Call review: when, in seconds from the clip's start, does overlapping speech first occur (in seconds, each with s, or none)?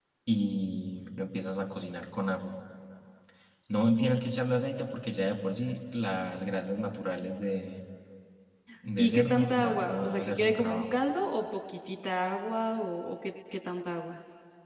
9.0 s